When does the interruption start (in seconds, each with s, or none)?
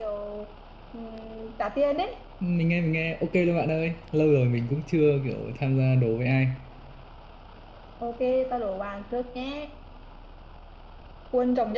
none